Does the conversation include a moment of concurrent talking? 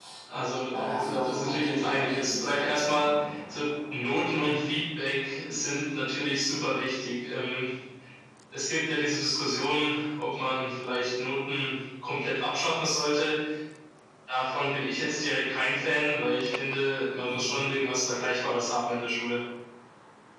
Yes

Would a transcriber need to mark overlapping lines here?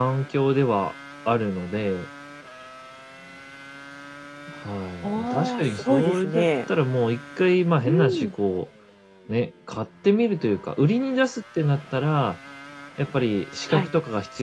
Yes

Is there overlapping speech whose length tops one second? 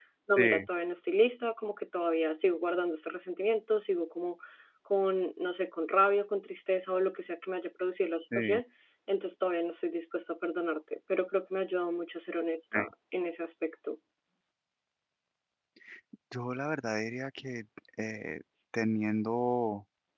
No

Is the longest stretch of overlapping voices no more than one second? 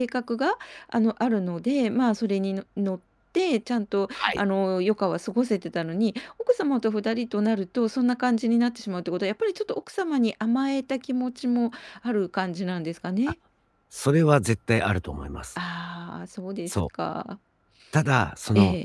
Yes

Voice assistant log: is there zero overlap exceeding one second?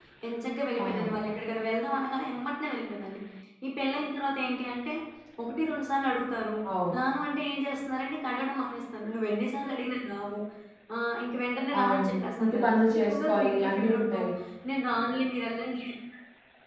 No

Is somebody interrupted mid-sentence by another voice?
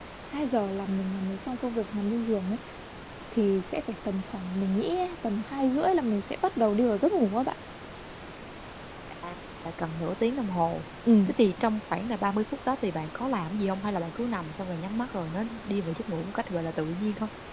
No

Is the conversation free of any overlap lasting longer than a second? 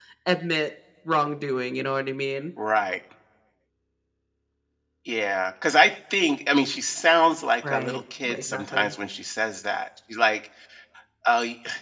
No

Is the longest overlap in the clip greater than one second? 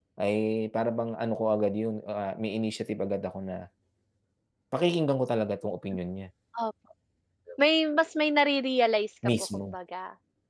No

